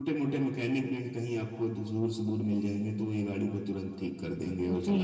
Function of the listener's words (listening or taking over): taking over